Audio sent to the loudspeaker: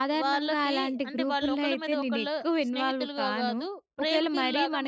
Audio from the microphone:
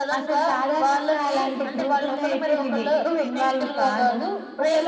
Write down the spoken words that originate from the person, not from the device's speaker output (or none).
none